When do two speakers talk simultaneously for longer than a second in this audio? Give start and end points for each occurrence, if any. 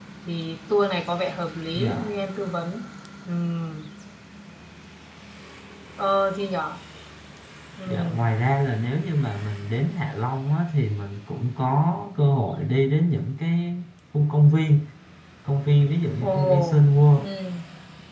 none

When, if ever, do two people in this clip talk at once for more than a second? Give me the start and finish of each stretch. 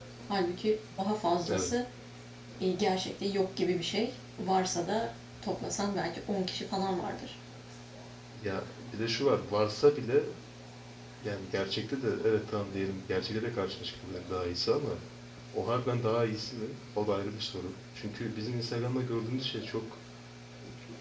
none

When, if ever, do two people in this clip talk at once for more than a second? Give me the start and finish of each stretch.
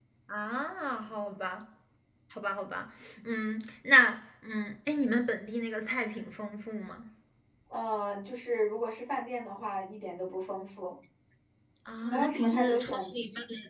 11.9-13.2

